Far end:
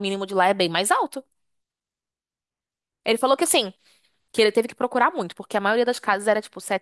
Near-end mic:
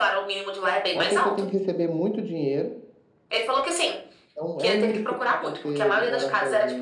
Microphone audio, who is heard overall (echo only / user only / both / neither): both